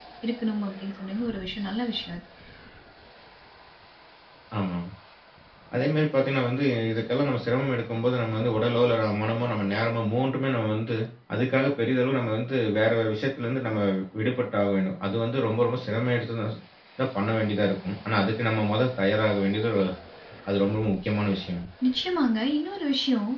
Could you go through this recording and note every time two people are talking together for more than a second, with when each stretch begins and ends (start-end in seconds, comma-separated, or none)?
none